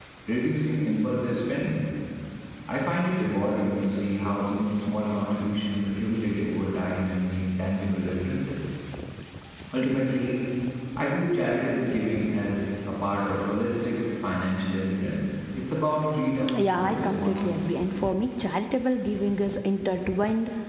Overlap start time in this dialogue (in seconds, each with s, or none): 16.5 s